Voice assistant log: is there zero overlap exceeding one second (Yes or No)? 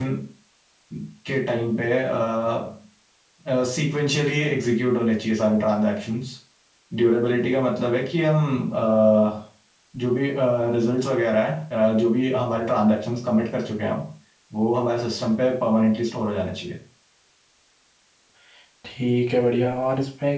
Yes